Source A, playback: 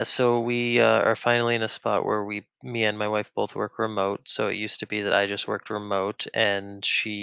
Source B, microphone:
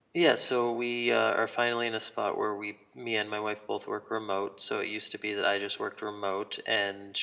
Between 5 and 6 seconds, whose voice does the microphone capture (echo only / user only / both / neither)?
echo only